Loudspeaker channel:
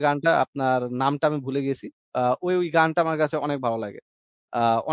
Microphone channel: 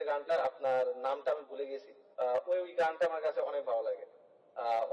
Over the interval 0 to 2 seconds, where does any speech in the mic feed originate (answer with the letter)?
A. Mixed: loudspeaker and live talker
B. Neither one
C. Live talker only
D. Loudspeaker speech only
D